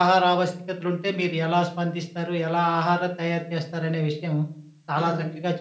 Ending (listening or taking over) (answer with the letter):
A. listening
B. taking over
A